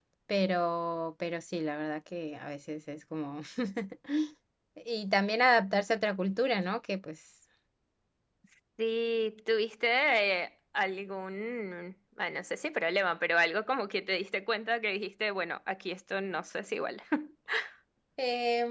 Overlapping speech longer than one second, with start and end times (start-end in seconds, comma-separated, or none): none